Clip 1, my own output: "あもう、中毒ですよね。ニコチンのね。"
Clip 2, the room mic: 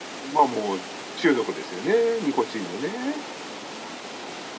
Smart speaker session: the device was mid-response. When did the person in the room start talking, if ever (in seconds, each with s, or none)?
none